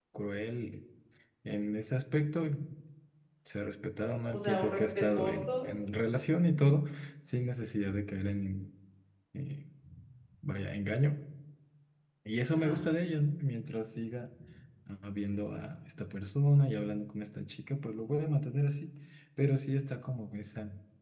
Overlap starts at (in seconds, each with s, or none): 4.3 s